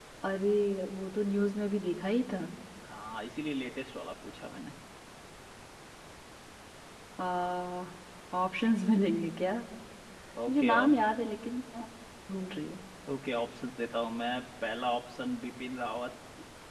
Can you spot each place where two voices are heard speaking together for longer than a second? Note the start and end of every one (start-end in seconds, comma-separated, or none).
none